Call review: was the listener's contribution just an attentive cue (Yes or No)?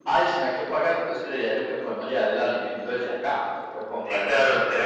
No